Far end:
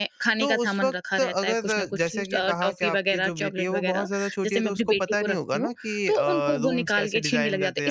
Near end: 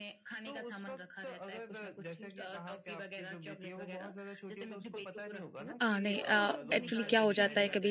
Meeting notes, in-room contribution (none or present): present